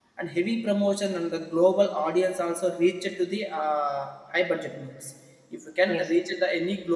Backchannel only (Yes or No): Yes